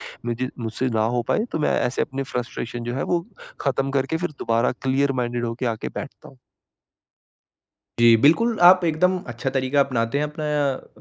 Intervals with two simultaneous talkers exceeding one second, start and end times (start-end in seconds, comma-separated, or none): none